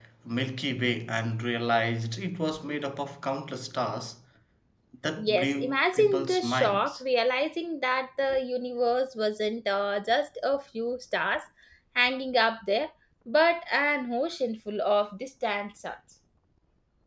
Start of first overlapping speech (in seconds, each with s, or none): 5.2 s